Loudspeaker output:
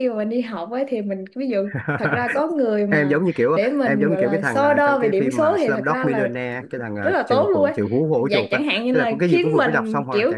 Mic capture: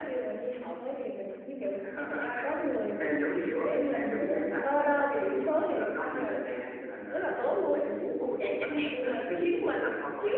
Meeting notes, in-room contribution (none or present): none